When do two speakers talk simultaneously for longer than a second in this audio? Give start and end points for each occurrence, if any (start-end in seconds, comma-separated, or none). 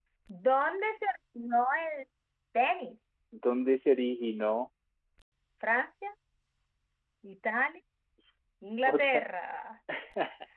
none